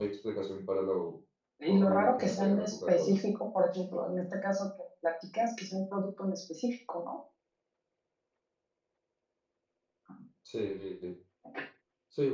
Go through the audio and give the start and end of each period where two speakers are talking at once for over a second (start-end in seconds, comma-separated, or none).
1.7-3.2